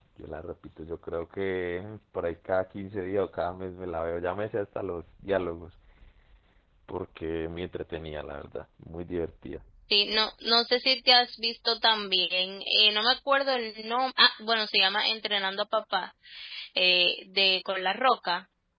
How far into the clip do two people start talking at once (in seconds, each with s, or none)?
none